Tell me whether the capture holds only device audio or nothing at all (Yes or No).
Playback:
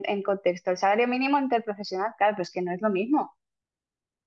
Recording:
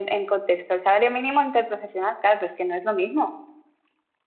Yes